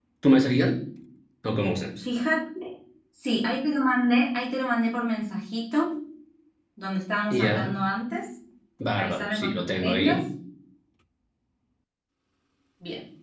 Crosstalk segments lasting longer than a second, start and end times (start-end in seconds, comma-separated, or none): 8.9-10.2